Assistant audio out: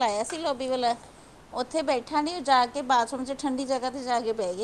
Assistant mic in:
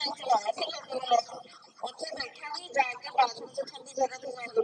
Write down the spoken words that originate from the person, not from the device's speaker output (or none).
none